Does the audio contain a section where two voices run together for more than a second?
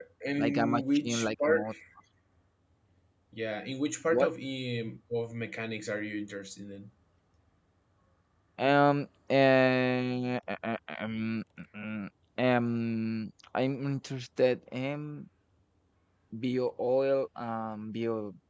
Yes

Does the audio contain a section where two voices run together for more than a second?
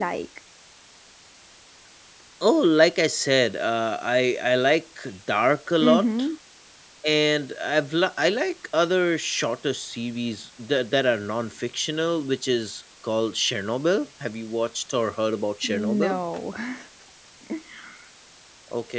No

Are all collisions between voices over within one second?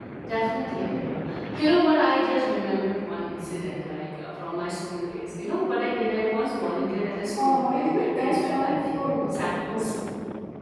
No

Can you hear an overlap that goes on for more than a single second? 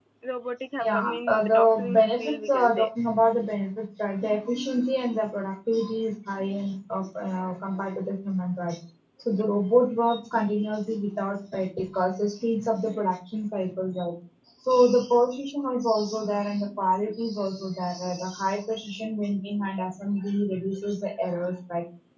Yes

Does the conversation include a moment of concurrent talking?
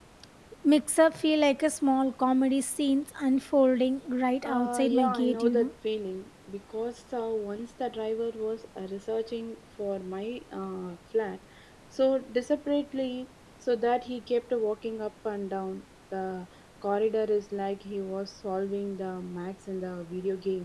Yes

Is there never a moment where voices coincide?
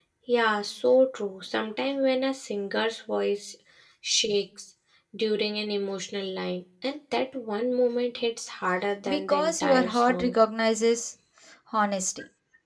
No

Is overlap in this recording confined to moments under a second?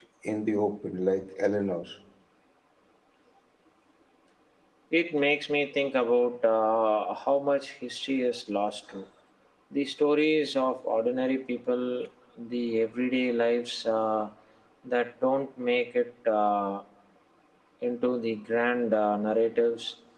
Yes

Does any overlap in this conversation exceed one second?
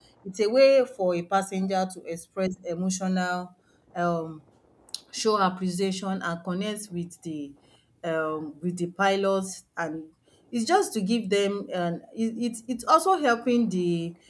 No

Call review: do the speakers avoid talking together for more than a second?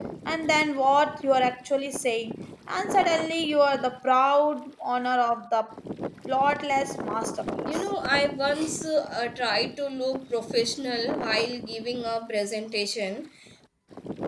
Yes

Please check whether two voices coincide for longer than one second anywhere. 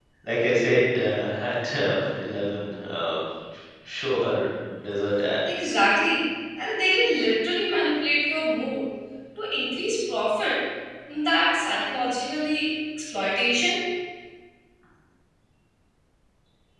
No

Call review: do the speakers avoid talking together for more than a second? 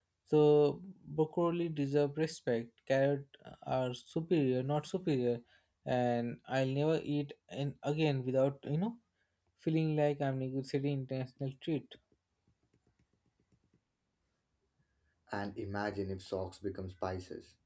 Yes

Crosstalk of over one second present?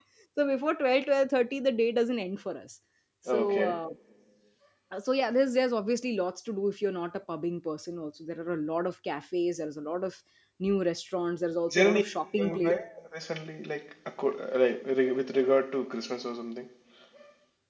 No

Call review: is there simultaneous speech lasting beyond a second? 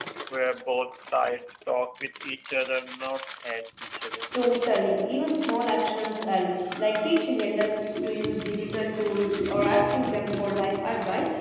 No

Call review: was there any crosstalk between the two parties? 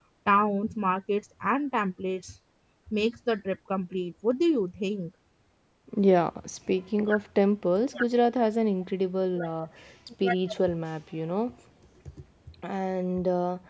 No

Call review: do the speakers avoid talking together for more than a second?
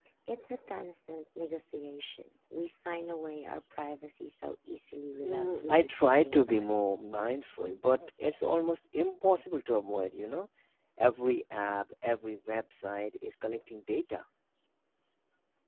No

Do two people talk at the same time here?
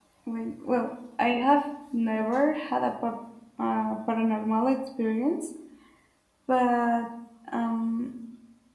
No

